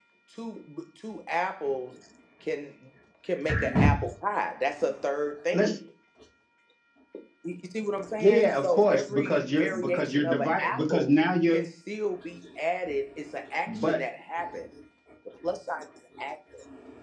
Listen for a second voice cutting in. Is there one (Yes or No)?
Yes